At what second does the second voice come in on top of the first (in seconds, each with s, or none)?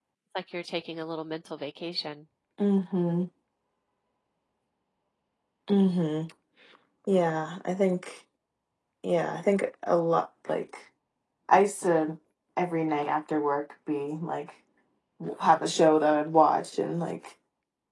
none